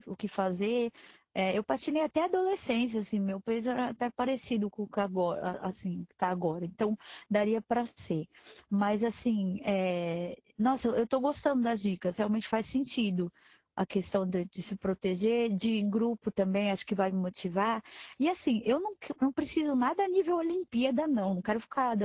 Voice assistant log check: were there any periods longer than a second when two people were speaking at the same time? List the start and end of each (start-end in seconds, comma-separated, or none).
none